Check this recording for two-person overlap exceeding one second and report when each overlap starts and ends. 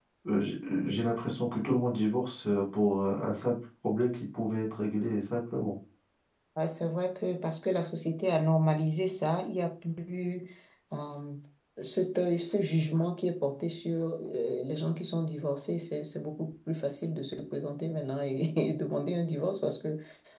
none

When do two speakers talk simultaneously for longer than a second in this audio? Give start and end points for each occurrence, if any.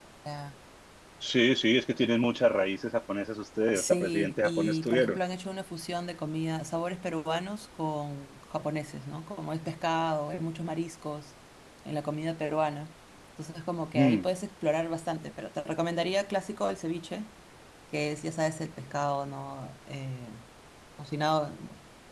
3.7-5.2

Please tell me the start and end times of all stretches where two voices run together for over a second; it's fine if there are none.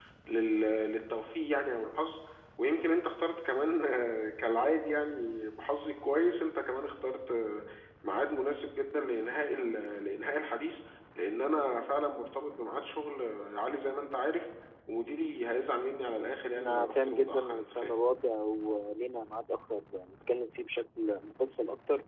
16.6-17.9

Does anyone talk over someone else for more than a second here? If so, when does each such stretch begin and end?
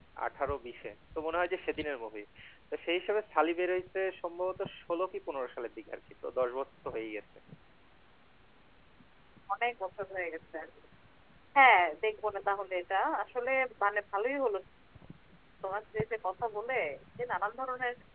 none

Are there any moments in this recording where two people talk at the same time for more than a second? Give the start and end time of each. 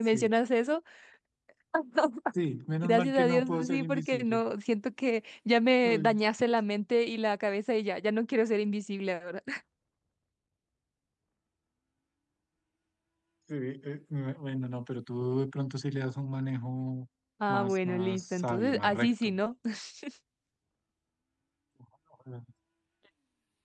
2.8-4.4, 17.5-19.3

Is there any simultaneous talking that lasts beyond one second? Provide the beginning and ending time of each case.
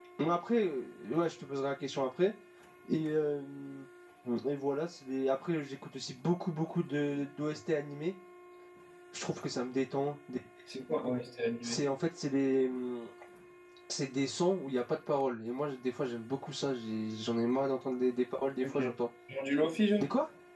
none

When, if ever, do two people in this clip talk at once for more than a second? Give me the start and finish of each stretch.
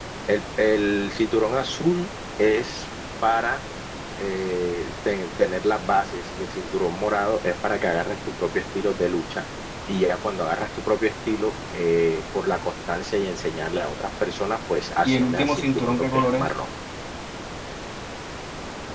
15.0-16.5

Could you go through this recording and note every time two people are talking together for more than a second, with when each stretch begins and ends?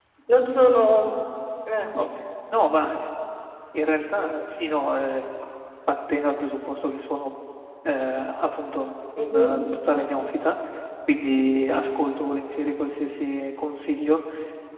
none

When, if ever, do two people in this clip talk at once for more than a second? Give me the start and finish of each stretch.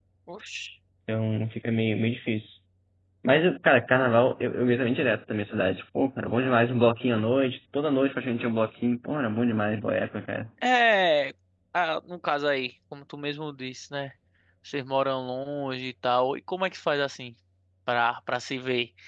none

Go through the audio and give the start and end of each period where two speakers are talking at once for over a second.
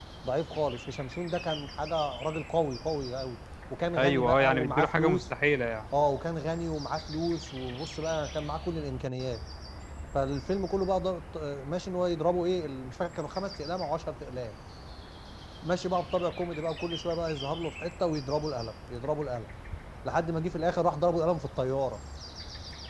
4.0-5.2

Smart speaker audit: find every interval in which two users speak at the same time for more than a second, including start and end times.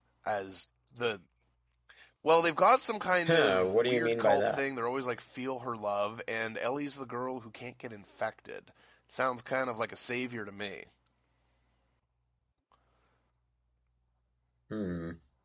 3.3-4.6

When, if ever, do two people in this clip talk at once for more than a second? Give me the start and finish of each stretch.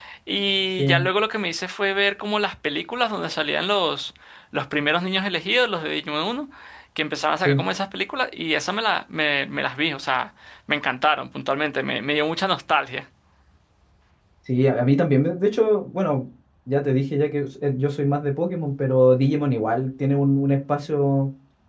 none

